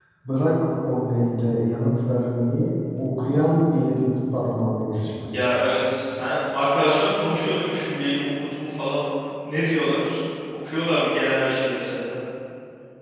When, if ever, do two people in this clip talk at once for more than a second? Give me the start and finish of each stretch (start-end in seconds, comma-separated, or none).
none